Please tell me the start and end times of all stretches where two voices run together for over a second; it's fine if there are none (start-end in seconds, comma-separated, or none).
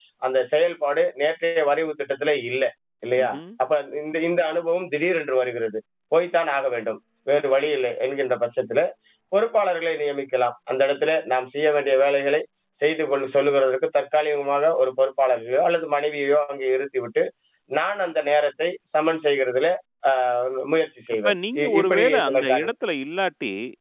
21.2-22.7